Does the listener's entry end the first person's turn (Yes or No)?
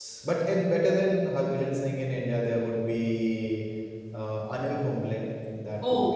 Yes